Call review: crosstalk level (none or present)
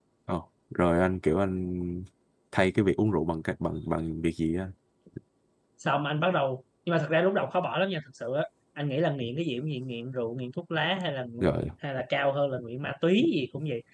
none